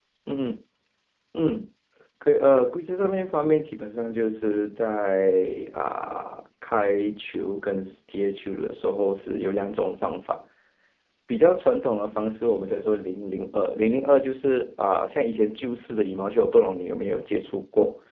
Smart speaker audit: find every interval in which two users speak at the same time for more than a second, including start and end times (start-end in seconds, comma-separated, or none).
none